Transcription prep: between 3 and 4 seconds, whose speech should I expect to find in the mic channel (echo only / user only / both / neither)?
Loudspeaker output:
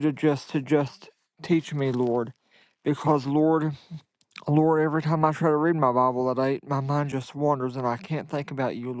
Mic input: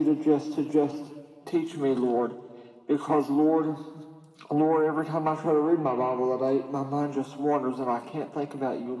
echo only